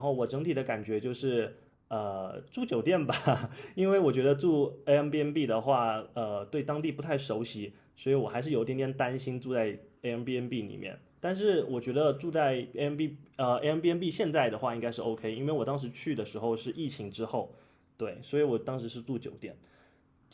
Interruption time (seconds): none

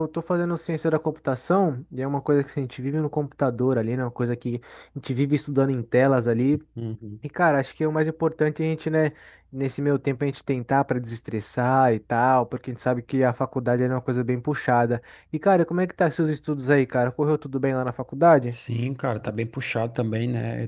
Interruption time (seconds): none

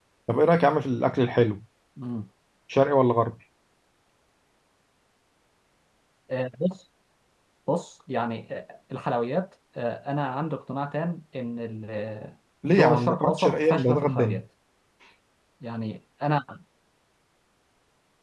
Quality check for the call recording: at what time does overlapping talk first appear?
13 s

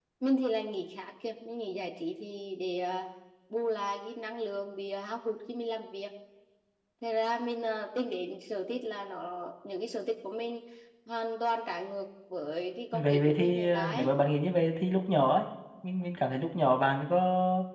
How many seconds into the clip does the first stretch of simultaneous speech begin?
13 s

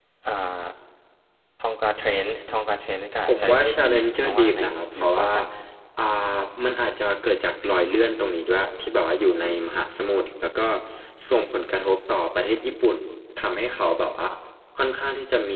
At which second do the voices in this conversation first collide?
3 s

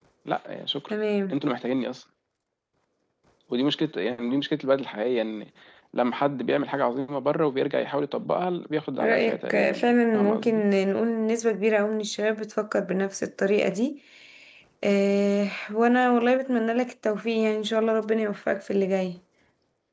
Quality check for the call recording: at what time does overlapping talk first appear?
9 s

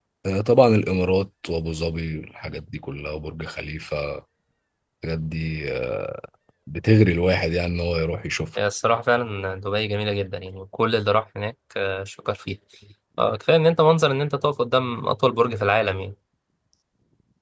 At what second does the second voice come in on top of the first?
none

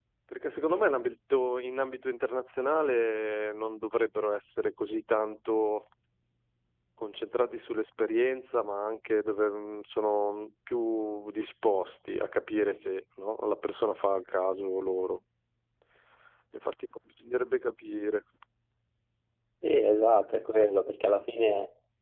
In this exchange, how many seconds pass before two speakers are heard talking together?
none

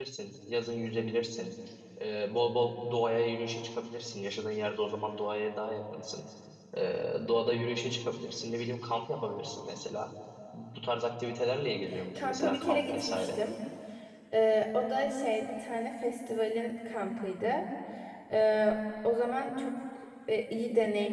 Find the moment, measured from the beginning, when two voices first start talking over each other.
12 s

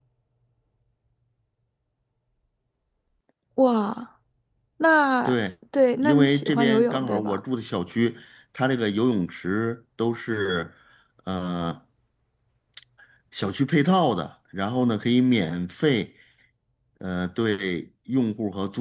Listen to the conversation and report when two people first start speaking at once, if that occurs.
6 s

